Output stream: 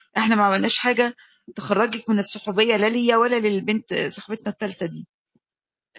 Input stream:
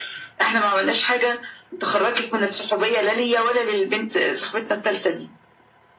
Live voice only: none

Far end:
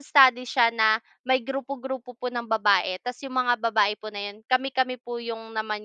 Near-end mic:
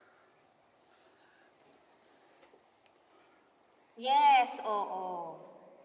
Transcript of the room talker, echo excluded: Yes, oo.

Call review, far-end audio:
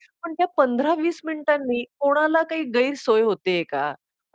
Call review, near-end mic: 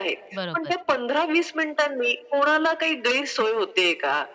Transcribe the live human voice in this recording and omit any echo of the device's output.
बरोबर.

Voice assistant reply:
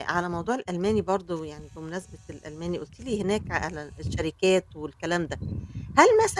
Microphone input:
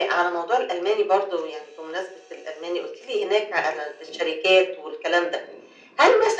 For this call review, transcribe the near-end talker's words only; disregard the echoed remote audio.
none

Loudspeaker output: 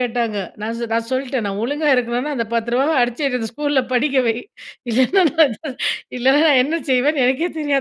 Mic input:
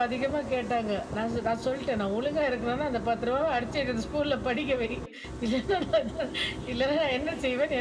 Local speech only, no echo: none

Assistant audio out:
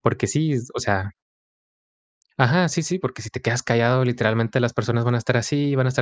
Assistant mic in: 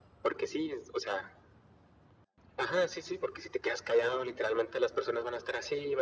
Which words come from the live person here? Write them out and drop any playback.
none

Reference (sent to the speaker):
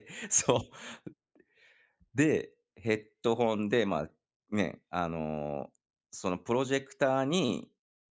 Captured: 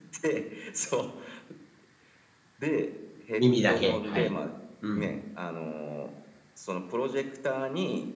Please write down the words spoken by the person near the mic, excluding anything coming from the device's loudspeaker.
耳だけ、はい。うん。

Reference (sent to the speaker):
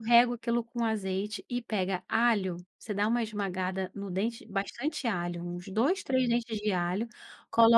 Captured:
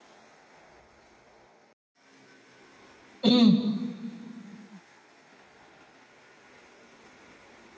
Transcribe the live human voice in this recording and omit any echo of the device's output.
Hum.

